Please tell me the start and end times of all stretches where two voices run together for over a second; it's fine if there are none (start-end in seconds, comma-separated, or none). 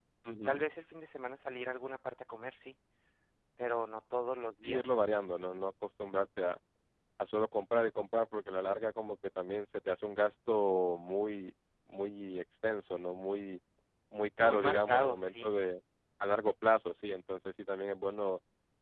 14.4-15.6